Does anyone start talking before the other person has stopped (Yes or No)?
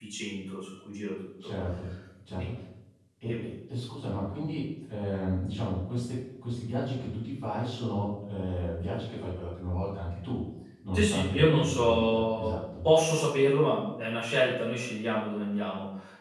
Yes